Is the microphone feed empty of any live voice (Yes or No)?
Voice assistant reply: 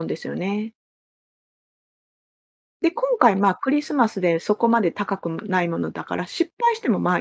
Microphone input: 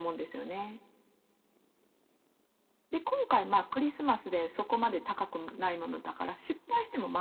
Yes